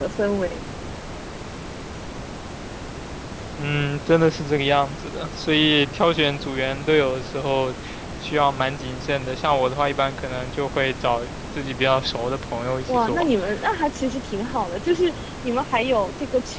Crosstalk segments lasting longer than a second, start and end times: none

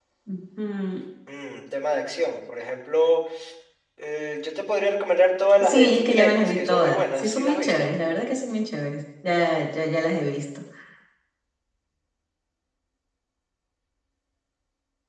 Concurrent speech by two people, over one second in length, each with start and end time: 5.6-7.8

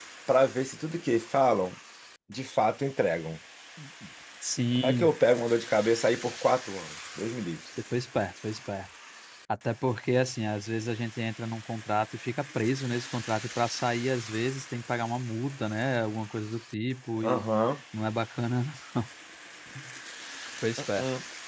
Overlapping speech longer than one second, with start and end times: none

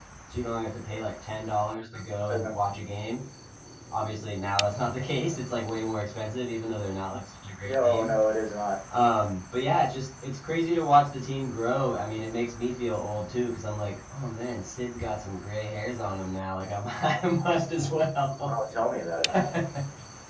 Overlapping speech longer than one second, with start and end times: none

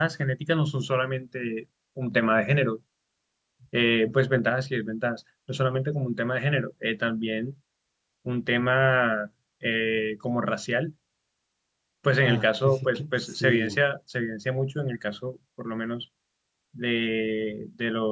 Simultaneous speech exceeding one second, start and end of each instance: 12.2-13.8

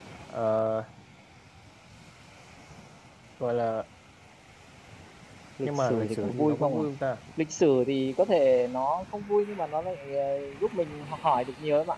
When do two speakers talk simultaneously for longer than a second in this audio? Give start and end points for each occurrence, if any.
5.6-6.8

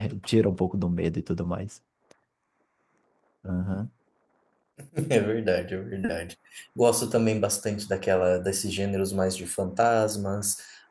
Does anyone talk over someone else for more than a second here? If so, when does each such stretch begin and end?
none

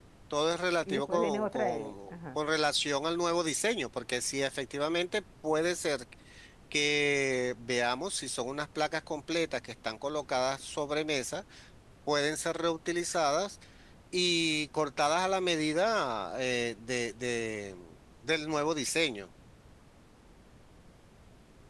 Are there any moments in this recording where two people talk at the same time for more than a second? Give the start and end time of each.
0.9-2.4

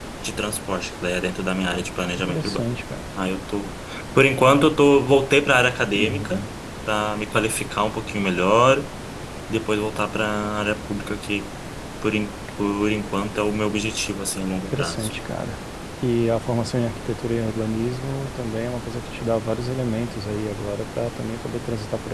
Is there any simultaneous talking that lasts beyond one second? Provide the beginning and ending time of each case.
none

